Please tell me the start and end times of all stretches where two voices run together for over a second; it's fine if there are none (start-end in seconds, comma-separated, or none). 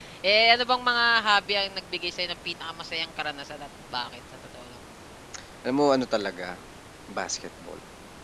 none